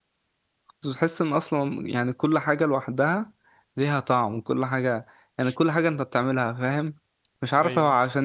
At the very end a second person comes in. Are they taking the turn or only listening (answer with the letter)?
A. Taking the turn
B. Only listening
B